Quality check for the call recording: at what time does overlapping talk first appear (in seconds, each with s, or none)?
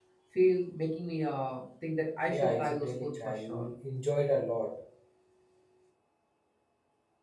2.3 s